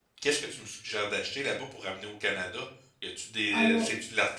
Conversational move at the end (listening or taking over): listening